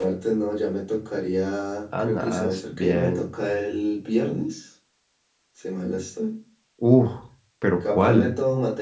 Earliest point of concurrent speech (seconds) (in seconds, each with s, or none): 2.0 s